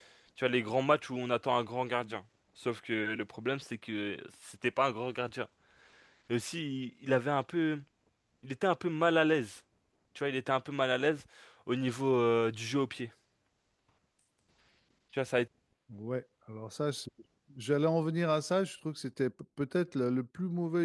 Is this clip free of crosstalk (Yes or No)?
Yes